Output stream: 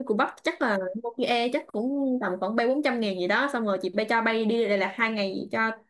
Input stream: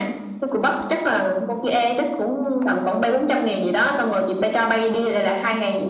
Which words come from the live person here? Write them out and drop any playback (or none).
none